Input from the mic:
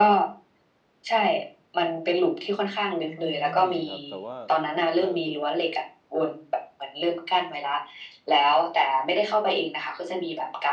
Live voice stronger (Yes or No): No